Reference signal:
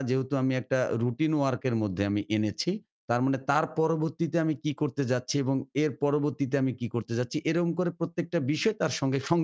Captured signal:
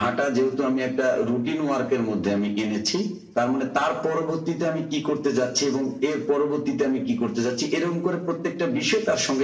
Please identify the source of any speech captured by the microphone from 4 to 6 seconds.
echo only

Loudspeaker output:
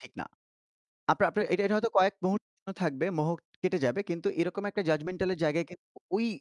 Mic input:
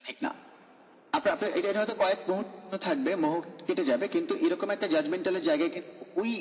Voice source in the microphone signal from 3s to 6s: echo only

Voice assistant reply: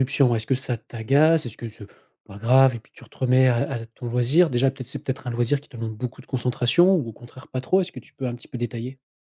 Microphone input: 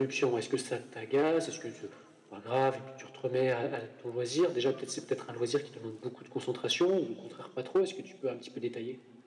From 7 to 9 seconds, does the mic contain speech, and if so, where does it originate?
echo only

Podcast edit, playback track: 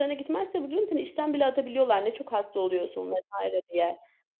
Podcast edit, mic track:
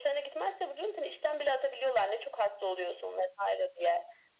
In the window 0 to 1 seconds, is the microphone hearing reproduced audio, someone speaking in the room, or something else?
echo only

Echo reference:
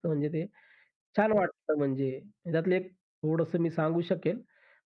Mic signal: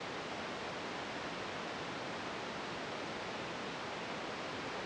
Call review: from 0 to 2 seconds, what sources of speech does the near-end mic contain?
neither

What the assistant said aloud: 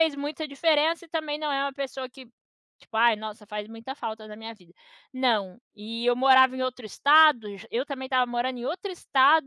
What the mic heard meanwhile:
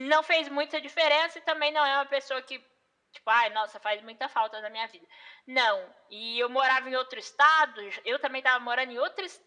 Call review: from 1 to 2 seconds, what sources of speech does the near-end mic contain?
echo only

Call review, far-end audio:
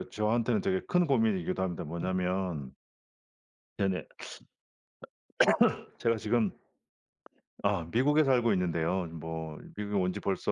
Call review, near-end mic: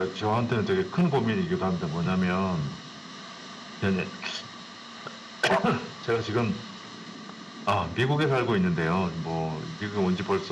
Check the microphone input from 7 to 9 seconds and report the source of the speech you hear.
echo only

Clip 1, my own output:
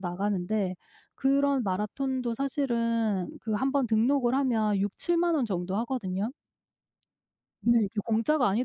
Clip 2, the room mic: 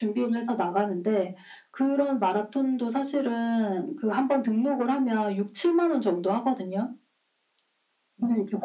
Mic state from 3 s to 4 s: echo only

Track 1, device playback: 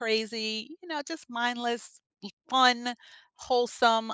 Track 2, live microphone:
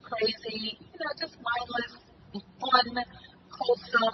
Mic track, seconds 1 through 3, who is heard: echo only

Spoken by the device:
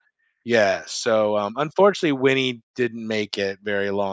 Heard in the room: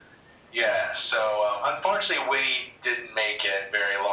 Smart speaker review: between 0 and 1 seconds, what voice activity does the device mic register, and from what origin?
echo only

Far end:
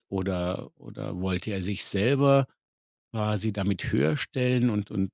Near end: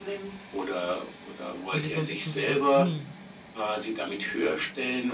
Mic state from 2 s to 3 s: both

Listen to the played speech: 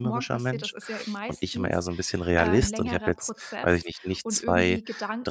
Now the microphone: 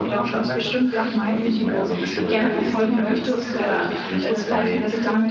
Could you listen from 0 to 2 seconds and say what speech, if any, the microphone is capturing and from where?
both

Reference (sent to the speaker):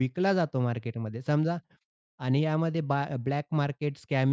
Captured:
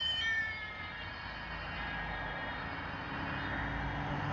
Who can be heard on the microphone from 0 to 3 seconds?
neither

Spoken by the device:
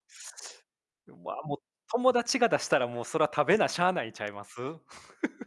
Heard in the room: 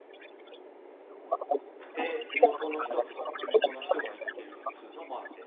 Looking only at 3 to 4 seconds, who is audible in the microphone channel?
both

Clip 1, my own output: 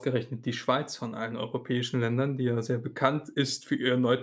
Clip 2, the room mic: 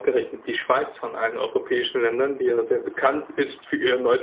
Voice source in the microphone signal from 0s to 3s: echo only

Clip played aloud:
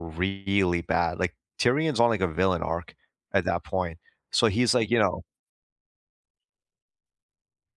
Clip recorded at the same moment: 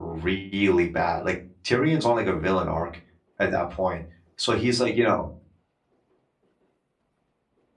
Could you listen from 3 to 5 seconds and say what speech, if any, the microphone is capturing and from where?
echo only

